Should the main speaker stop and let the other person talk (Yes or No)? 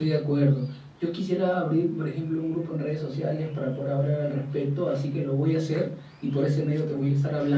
No